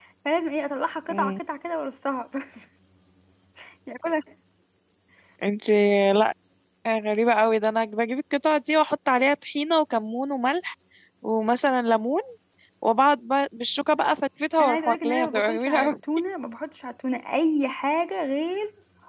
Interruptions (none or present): present